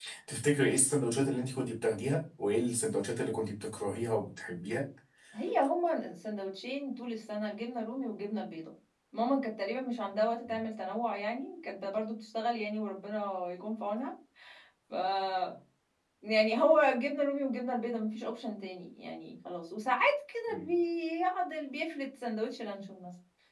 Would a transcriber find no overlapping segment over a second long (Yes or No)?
Yes